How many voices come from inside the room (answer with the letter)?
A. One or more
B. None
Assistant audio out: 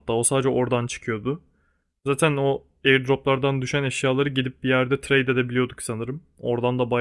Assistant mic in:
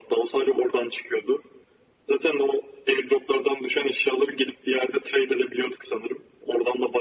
B